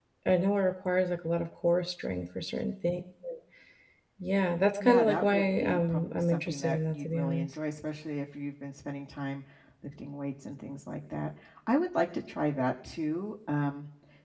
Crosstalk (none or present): present